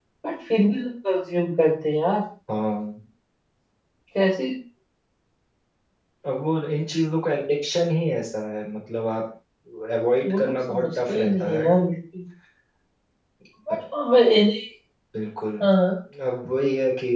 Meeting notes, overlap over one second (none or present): present